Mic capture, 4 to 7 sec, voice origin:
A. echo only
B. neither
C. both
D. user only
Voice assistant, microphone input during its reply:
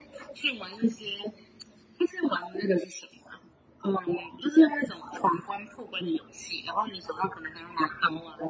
A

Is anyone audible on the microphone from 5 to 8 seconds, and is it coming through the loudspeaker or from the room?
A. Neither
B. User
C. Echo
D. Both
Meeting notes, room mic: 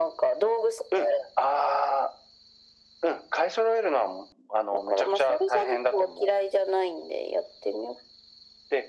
C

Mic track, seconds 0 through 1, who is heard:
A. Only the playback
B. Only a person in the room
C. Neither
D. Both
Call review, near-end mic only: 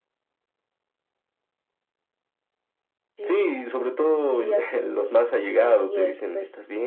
C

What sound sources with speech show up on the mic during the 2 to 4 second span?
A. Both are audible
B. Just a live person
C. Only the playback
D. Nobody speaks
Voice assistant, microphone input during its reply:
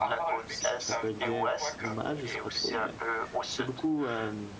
A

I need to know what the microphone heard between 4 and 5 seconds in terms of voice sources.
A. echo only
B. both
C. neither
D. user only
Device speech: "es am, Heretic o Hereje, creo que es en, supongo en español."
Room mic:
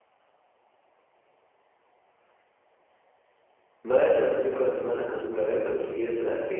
D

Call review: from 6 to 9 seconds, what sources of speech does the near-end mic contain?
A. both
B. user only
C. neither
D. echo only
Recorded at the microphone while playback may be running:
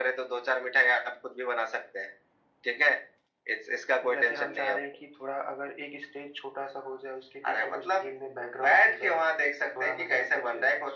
D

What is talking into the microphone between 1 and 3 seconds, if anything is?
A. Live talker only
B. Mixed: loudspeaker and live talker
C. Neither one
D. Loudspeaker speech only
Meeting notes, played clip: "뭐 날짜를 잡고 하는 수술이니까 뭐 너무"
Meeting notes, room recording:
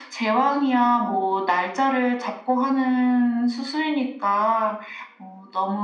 D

